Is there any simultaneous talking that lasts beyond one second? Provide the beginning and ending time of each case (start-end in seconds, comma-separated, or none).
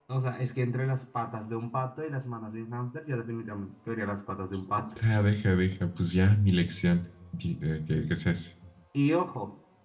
none